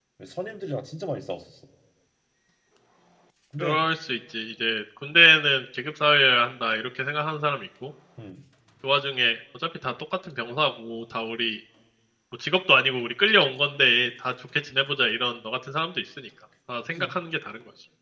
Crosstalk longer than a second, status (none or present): none